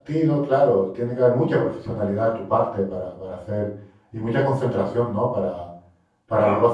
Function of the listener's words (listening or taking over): listening